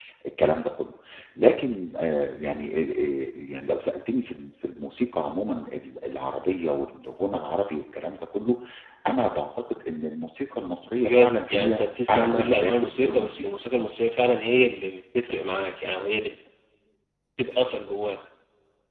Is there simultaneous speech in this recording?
Yes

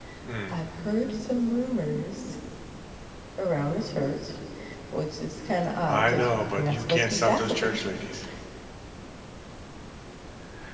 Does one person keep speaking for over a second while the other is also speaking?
Yes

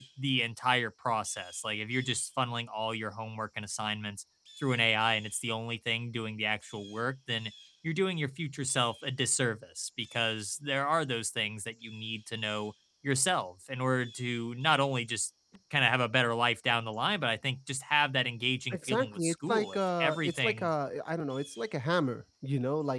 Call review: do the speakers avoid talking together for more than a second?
No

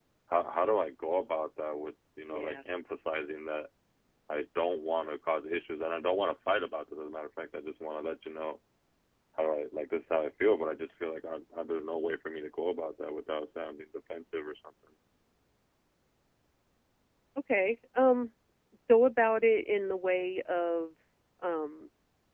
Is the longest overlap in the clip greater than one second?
No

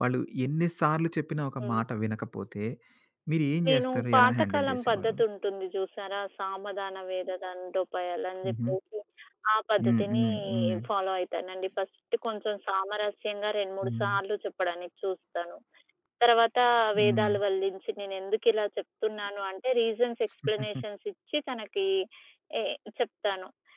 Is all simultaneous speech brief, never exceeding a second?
No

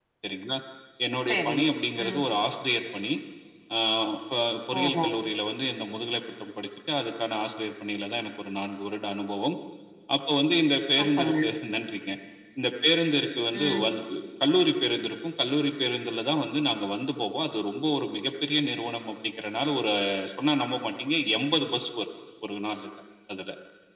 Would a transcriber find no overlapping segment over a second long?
Yes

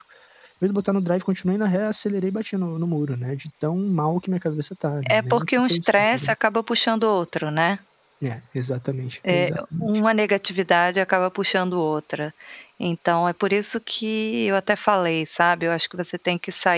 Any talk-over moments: Yes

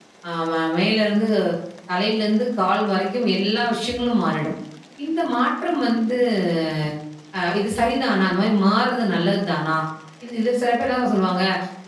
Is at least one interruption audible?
No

